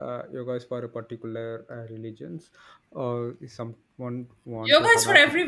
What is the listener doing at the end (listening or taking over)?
taking over